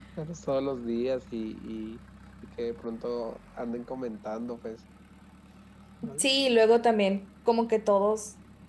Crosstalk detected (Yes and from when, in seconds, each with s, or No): No